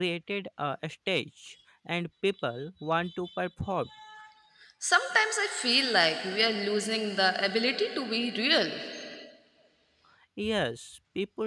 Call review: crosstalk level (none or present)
none